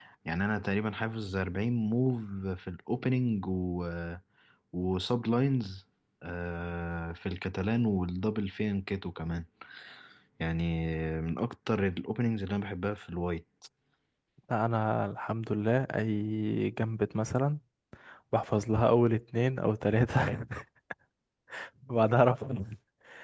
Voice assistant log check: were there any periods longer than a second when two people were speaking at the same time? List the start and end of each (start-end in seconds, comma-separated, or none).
none